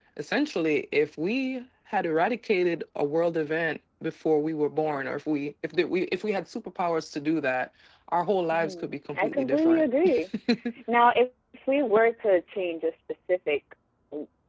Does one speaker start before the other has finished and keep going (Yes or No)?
Yes